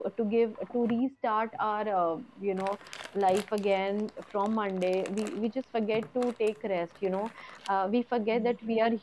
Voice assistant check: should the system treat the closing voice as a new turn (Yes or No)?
No